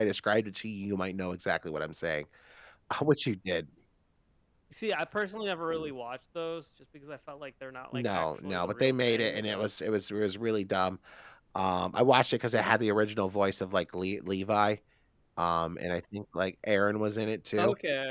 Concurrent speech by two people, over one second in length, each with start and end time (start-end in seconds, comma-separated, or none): 7.9-9.7